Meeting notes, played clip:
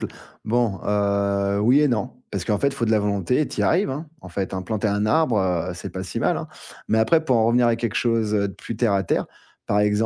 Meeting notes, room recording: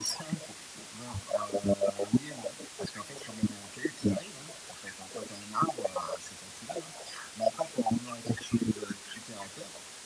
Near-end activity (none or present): none